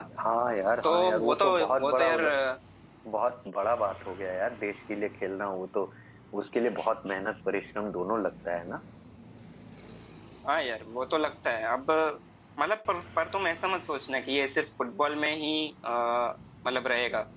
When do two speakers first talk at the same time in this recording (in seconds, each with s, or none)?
0.8 s